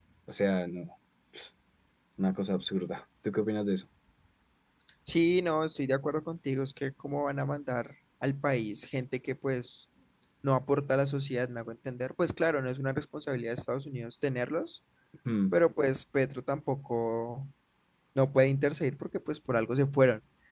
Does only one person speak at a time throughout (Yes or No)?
Yes